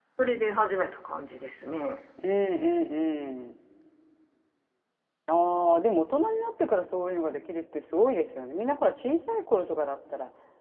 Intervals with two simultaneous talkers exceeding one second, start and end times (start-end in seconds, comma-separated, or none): none